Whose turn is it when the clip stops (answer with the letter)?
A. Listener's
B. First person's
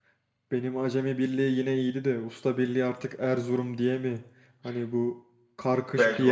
B